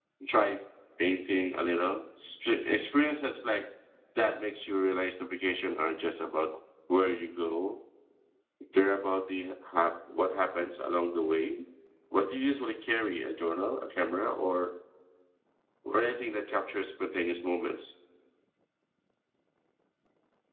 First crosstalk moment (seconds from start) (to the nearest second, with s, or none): none